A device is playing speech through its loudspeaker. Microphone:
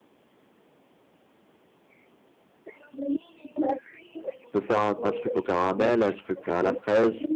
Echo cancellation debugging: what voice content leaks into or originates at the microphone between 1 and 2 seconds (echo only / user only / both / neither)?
neither